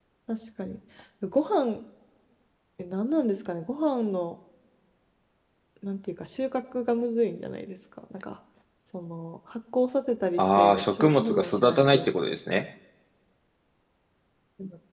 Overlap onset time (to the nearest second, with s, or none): 10 s